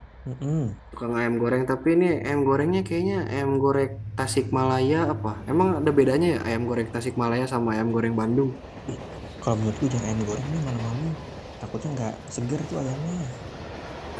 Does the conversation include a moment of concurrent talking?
No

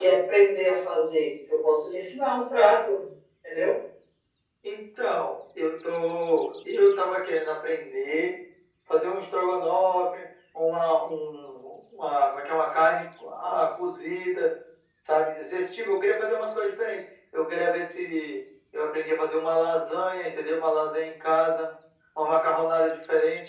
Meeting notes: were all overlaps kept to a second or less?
Yes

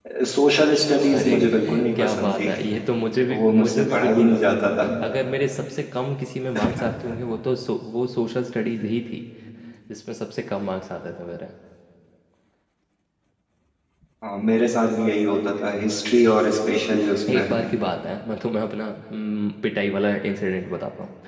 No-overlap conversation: No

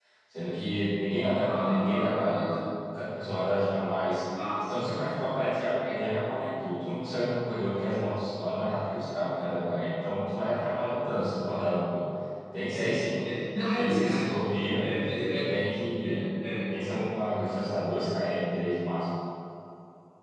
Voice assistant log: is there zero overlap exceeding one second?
No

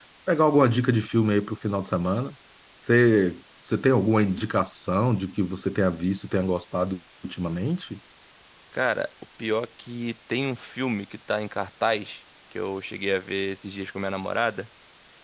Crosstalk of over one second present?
No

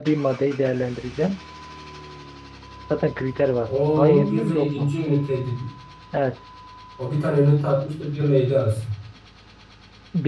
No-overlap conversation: No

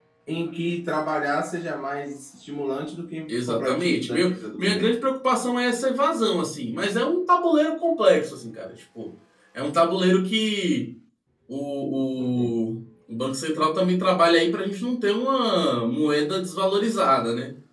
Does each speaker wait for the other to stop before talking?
No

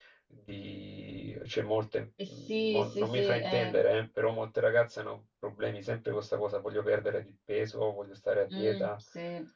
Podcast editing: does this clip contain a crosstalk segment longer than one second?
Yes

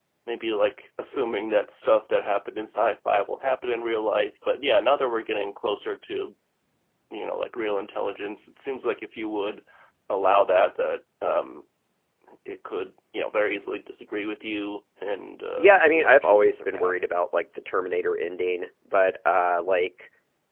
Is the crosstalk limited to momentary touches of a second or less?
No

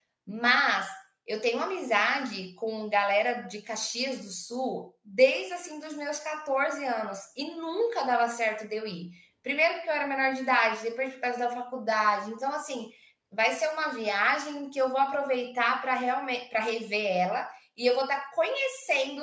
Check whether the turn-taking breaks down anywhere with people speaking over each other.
No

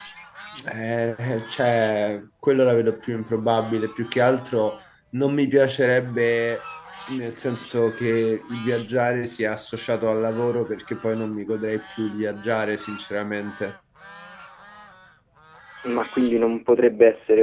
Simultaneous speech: No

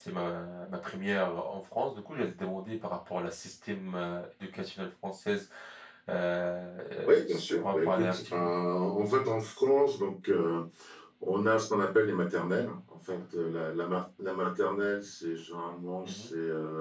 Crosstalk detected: Yes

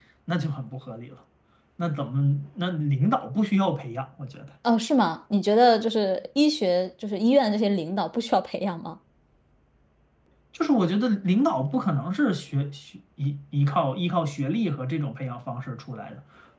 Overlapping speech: No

